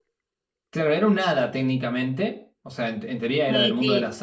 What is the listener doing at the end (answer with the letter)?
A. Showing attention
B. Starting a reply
B